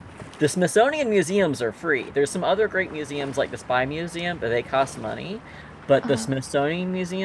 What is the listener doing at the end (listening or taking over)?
listening